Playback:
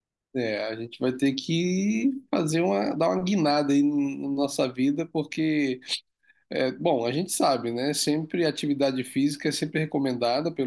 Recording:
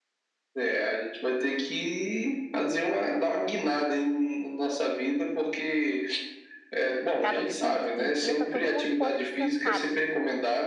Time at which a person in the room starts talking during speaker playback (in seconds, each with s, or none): 7.2 s